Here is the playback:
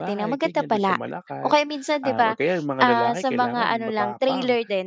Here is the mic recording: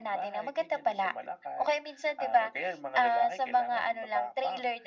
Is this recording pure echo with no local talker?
Yes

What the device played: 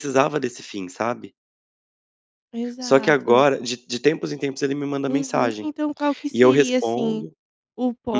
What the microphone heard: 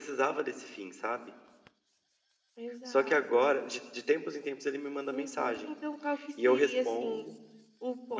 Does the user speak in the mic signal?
No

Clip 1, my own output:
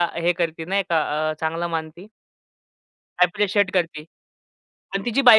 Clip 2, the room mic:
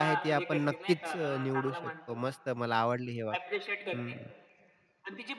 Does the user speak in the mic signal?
Yes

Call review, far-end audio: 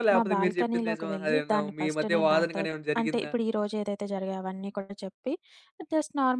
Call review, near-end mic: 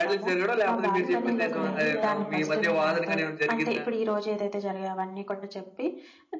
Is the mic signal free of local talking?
No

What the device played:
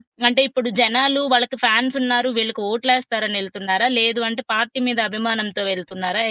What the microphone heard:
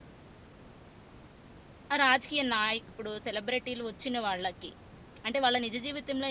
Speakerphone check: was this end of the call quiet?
No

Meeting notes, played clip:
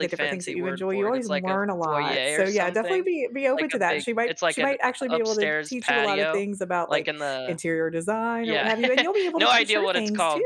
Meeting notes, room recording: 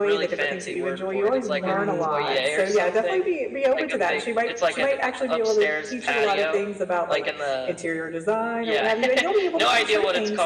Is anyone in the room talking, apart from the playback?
Yes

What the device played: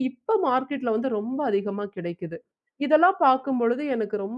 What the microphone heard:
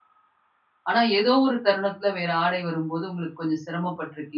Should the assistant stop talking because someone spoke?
Yes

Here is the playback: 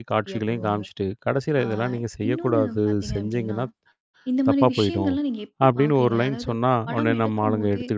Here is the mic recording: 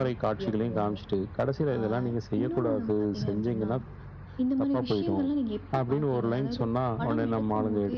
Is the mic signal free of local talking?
Yes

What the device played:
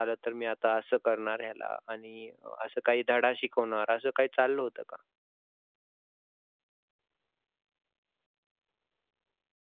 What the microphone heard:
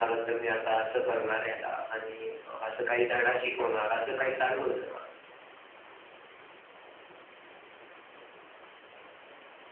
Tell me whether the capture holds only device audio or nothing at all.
Yes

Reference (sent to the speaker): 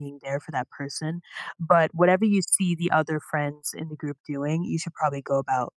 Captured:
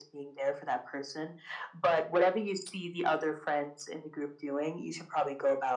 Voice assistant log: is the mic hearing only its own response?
Yes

